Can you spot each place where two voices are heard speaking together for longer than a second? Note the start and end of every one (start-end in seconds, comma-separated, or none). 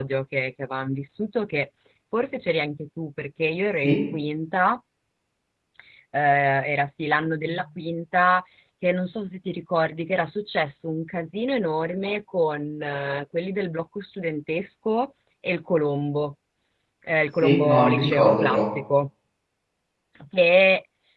17.4-18.6